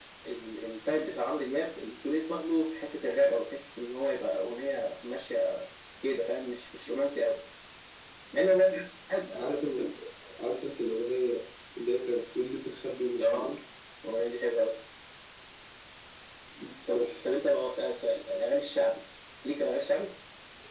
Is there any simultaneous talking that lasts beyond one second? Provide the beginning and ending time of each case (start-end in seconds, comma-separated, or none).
none